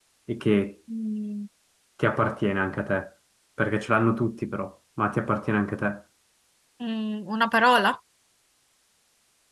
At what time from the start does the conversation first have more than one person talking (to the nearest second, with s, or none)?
none